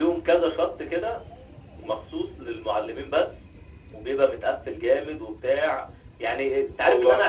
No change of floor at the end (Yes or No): Yes